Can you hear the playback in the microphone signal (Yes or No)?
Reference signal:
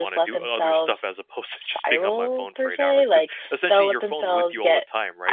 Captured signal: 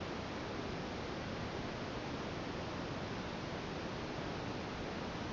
No